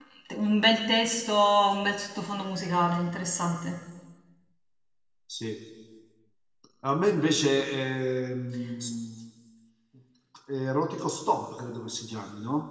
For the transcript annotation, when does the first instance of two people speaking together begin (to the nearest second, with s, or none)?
none